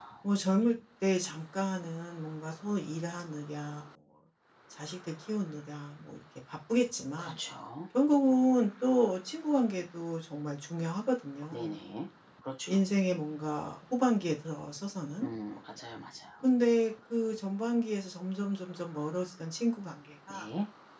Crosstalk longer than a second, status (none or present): none